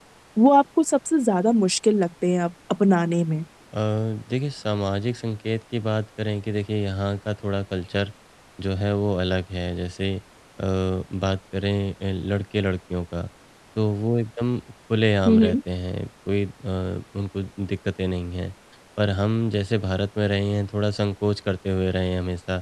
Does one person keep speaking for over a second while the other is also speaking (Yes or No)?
No